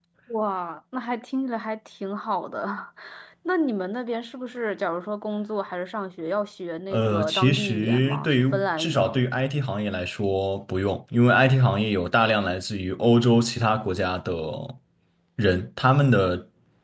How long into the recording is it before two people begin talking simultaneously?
6.9 s

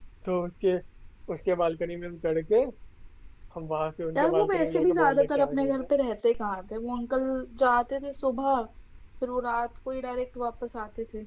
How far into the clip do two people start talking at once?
4.2 s

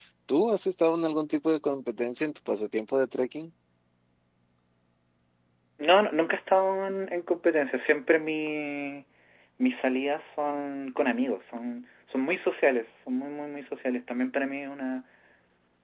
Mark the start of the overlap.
none

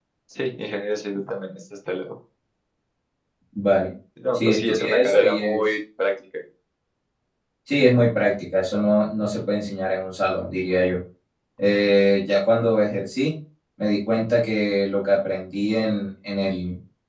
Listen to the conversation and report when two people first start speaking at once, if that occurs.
4.3 s

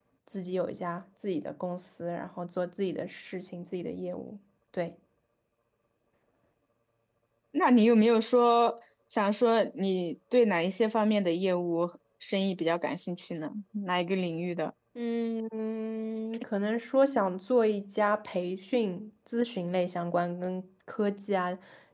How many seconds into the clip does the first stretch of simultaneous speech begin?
none

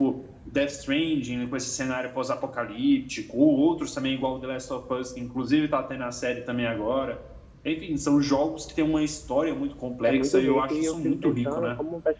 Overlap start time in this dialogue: 10.1 s

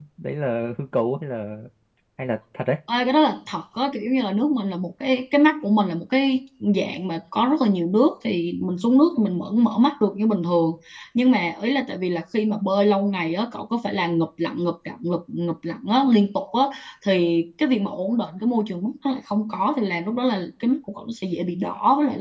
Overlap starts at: none

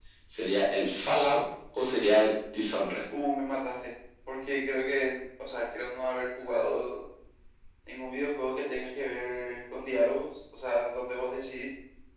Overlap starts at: none

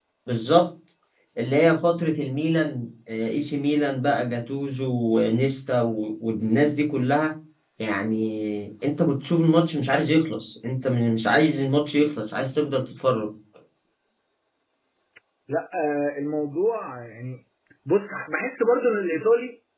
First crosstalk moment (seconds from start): none

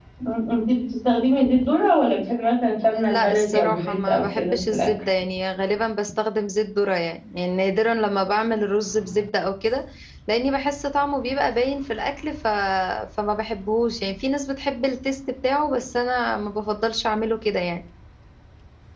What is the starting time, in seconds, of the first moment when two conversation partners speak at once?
2.9 s

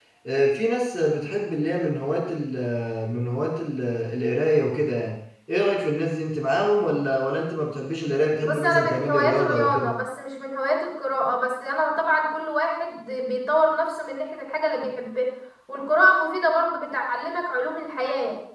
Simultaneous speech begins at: 8.4 s

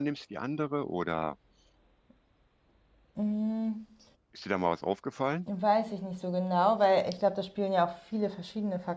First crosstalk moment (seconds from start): none

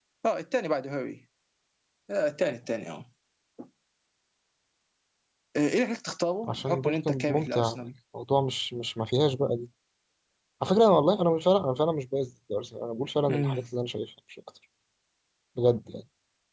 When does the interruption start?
6.5 s

